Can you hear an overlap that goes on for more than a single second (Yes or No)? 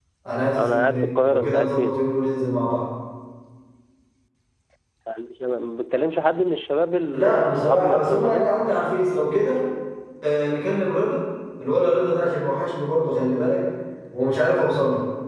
Yes